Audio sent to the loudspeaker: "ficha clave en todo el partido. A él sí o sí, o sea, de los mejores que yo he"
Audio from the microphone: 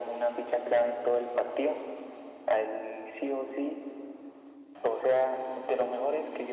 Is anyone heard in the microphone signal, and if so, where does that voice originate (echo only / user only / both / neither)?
echo only